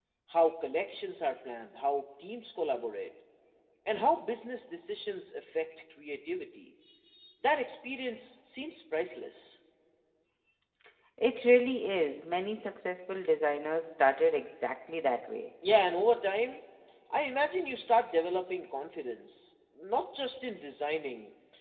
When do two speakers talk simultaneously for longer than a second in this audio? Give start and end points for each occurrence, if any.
none

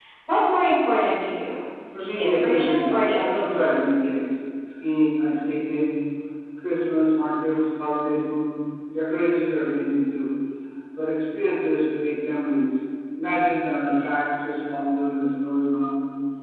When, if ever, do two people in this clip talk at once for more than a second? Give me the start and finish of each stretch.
2.0-3.9

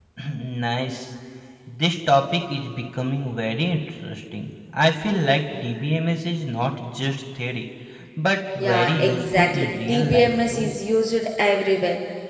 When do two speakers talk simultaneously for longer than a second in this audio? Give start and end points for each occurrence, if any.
8.6-10.8

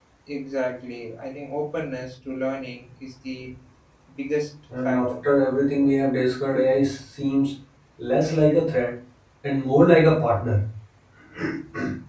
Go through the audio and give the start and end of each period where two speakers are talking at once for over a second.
none

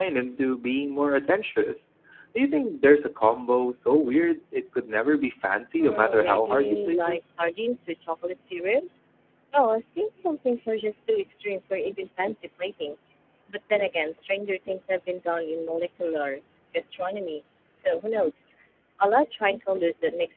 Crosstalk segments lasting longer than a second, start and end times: 5.8-7.2

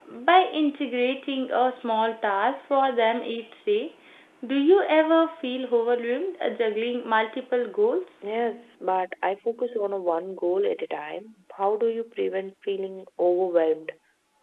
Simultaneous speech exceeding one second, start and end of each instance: none

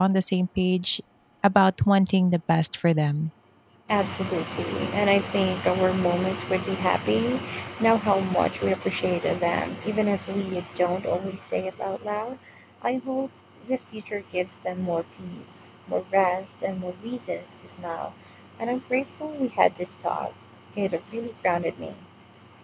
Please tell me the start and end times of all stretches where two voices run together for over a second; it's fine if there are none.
none

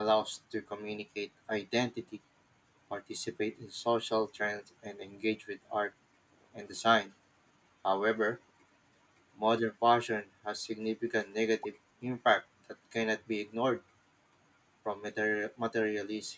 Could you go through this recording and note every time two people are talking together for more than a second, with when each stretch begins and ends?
none

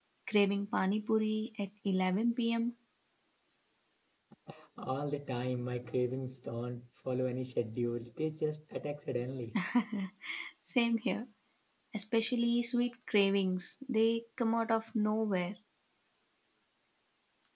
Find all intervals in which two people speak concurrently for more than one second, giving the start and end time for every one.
none

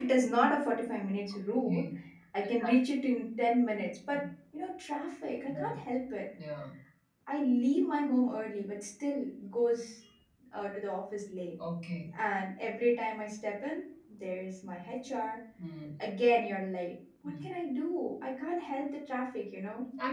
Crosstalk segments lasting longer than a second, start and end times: none

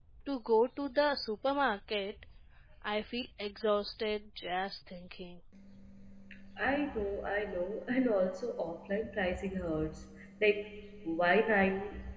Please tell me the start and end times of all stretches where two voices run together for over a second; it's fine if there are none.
none

